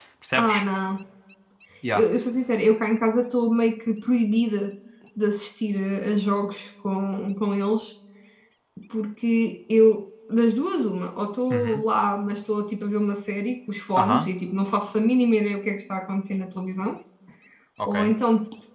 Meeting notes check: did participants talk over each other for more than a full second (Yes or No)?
No